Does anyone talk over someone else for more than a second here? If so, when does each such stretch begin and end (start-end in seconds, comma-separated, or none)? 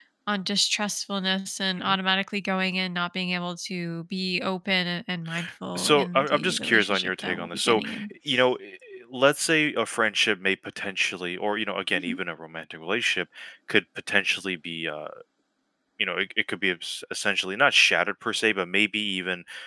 5.8-7.8